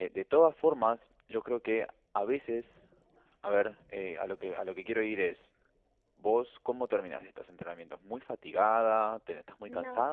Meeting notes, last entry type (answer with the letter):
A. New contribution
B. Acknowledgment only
B